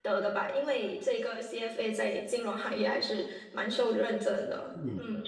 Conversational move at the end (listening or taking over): taking over